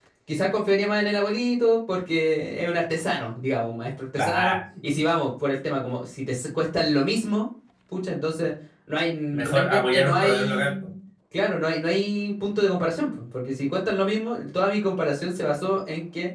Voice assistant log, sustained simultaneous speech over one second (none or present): present